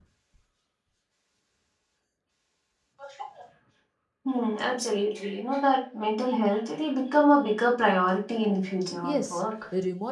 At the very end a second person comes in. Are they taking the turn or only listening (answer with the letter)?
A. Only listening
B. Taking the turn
B